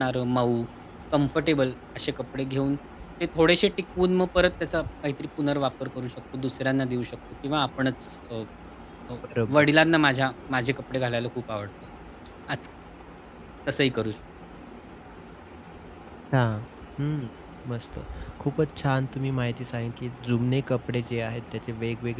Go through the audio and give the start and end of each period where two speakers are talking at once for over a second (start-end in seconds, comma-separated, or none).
none